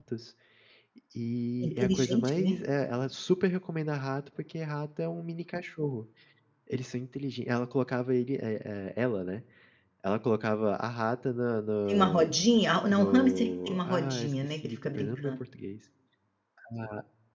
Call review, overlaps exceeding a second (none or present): present